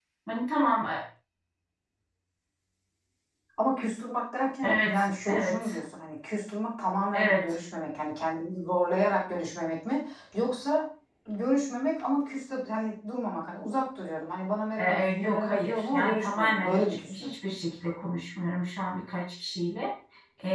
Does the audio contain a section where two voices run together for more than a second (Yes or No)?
Yes